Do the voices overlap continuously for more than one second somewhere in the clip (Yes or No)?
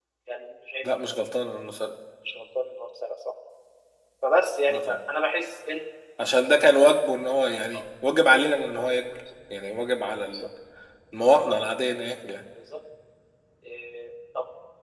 No